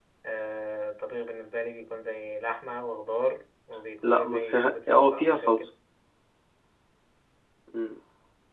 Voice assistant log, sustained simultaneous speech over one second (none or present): present